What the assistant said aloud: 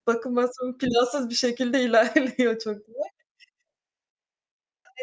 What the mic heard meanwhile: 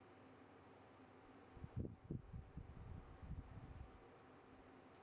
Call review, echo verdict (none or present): none